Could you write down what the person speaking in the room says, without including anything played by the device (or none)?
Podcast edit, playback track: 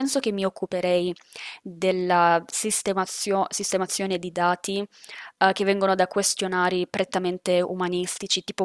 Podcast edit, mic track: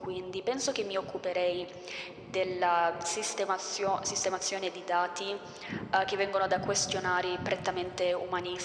none